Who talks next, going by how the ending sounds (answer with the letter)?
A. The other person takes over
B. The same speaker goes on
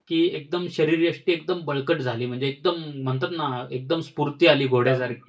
A